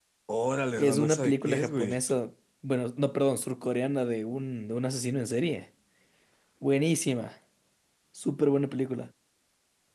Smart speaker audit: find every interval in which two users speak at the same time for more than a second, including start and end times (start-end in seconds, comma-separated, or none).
0.8-2.0